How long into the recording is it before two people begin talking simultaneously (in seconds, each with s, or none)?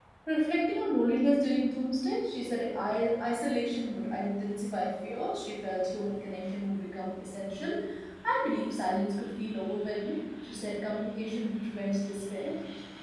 none